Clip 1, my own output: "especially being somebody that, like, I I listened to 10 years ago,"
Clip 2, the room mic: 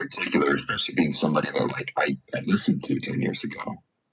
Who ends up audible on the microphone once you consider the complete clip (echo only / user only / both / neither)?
echo only